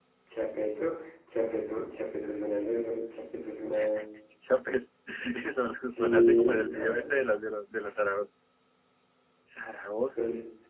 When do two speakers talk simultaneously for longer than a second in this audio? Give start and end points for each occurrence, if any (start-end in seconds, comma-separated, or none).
5.9-7.2